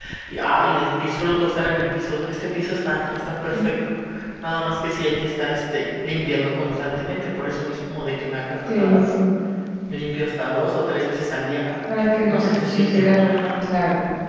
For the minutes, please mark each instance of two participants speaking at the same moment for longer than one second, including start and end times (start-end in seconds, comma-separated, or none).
12.0-13.3